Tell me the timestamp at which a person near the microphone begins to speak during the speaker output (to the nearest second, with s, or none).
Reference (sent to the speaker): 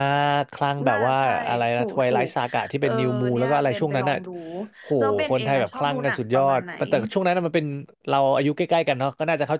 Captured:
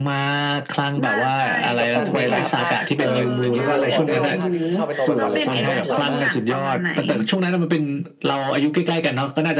2 s